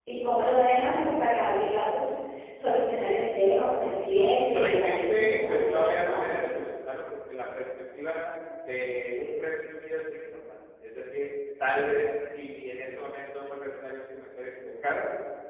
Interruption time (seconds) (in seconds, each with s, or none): 4.2 s